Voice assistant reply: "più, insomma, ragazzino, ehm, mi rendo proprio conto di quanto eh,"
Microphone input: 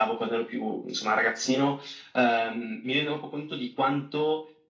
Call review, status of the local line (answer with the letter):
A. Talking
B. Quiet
B